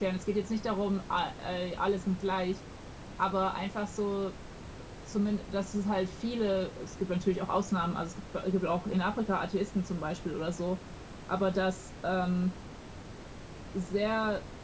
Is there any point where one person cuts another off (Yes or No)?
No